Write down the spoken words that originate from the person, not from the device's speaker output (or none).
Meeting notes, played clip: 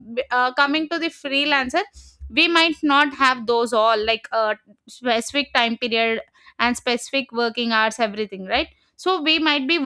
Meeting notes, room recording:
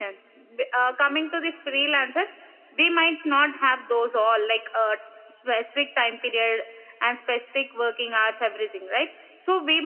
none